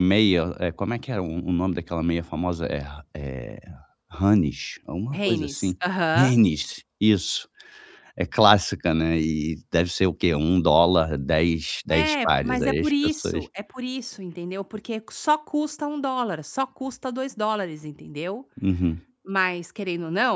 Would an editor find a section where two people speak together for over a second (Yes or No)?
Yes